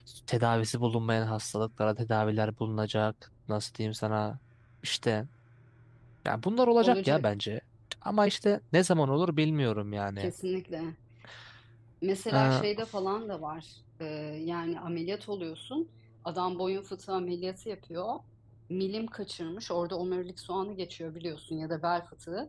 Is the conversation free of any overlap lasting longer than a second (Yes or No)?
Yes